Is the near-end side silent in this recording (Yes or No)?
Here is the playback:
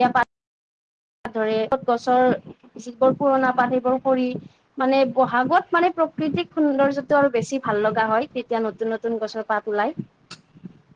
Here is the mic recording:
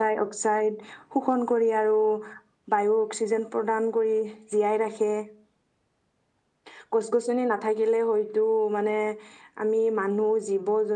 No